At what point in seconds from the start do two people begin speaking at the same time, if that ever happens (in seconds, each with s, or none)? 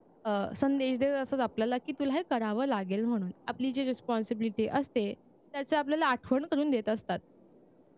none